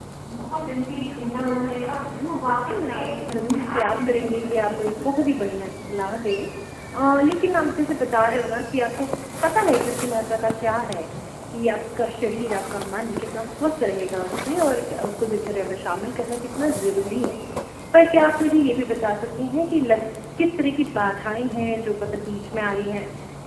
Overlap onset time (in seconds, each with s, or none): 2.1 s